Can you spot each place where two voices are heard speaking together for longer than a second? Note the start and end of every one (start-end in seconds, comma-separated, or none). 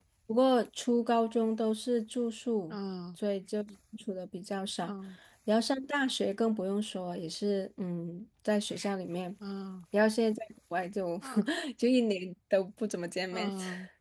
none